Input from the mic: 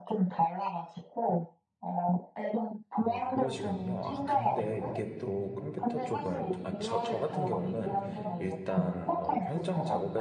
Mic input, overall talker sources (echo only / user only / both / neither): both